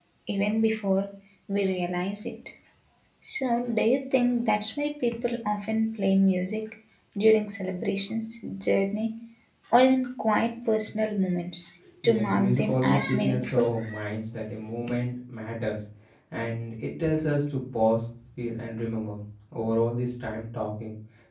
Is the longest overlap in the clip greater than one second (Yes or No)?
Yes